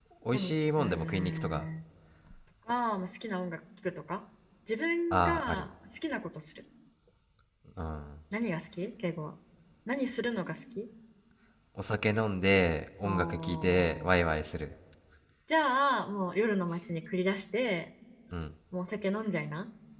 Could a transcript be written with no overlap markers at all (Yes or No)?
No